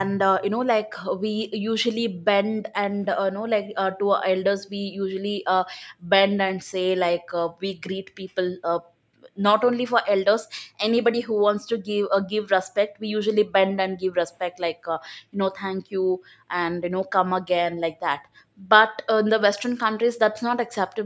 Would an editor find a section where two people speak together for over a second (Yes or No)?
No